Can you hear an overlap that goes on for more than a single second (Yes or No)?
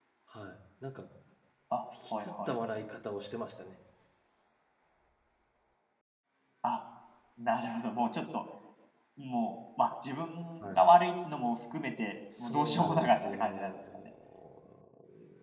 Yes